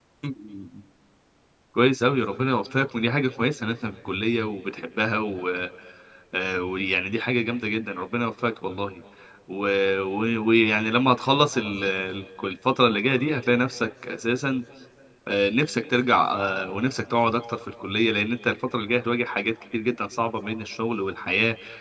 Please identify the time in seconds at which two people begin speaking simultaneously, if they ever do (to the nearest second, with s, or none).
none